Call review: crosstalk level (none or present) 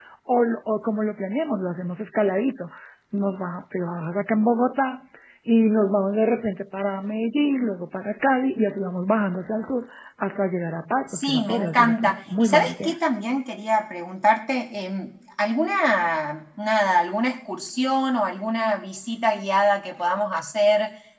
present